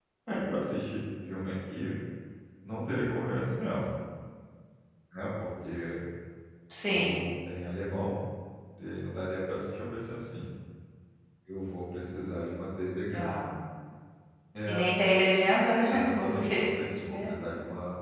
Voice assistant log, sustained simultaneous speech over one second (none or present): present